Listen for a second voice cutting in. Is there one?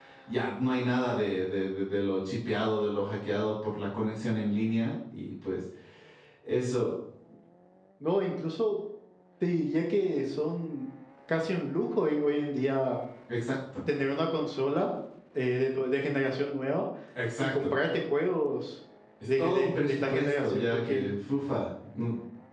Yes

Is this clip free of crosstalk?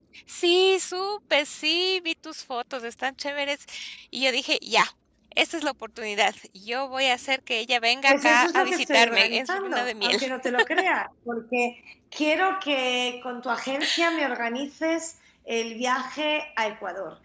No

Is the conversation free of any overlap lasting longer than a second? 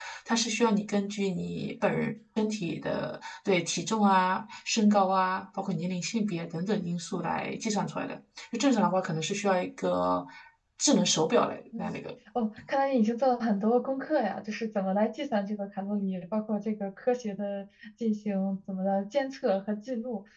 Yes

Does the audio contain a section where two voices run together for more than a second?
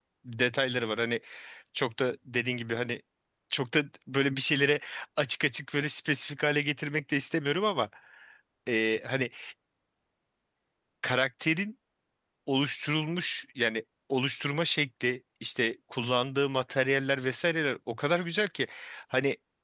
No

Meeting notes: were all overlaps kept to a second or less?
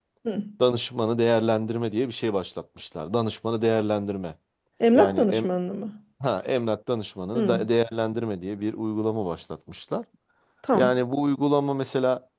Yes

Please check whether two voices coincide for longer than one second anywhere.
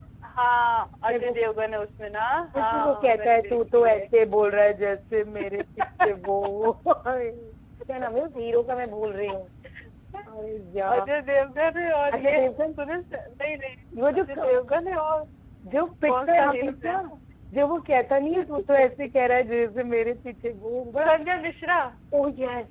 Yes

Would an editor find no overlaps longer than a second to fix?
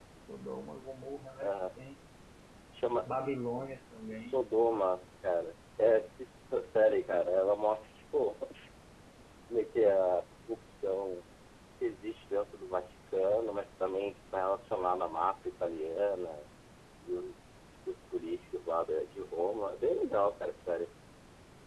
Yes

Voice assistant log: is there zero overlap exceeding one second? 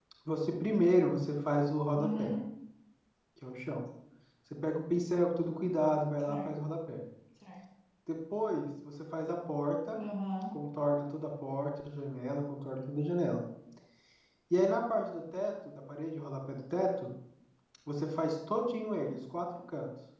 Yes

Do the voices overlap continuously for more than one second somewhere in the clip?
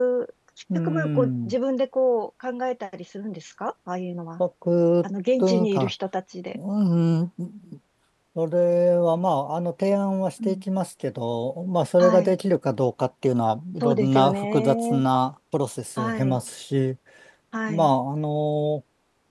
Yes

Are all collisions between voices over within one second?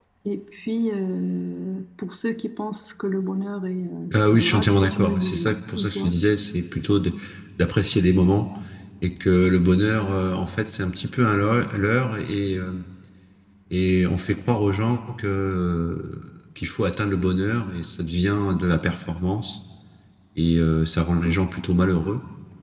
No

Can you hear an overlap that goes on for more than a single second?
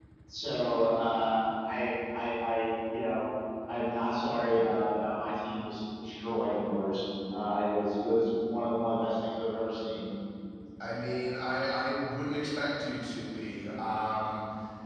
No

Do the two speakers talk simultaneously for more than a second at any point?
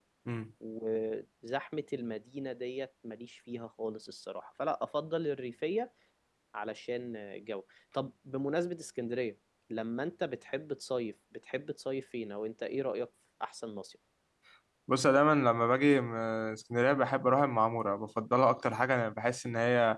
No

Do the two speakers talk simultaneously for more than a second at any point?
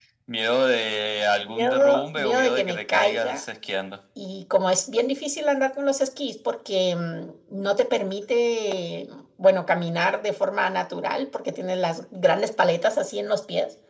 Yes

